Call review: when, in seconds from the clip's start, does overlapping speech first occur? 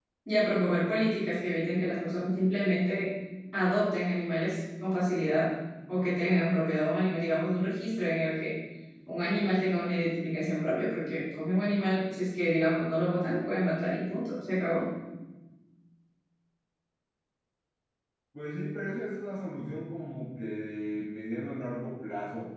none

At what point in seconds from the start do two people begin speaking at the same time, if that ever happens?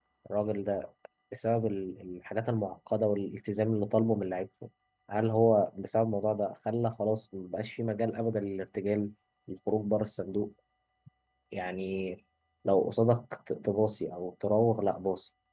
none

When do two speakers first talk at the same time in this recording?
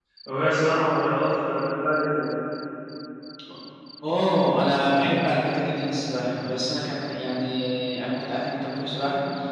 none

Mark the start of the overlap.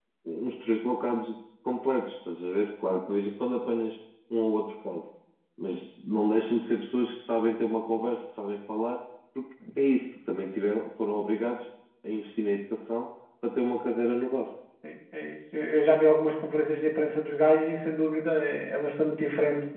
none

